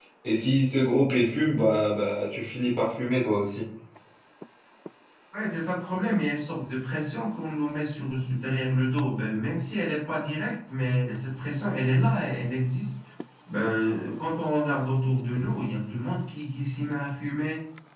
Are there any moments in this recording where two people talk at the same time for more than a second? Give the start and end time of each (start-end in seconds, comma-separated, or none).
none